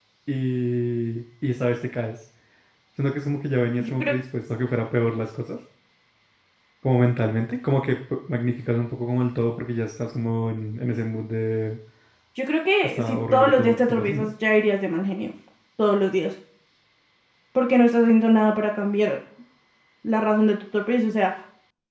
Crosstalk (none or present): present